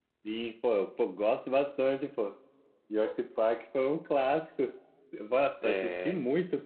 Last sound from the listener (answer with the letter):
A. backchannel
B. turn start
A